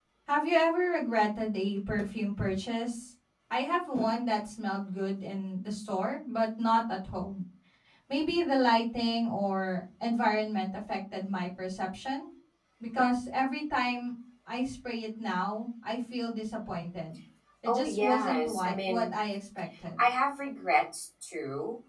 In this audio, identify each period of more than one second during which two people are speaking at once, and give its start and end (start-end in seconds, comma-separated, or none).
17.6-19.1